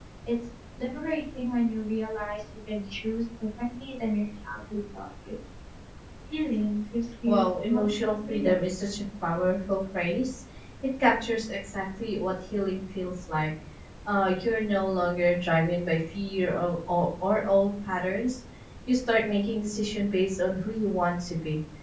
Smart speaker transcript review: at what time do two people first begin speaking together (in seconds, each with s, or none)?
7.2 s